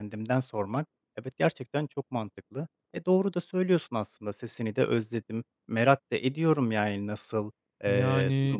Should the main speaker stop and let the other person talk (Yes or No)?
No